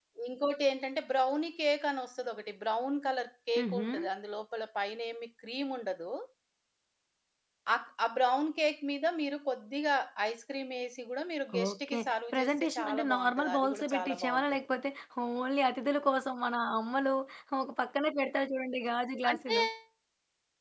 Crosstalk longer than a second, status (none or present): present